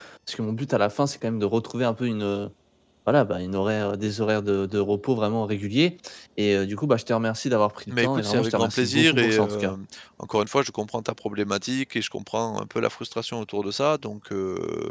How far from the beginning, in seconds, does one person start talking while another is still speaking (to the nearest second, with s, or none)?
8 s